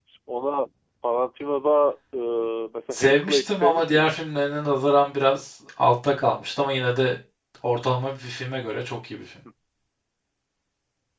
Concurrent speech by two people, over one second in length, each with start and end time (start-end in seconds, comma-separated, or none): 2.9-4.2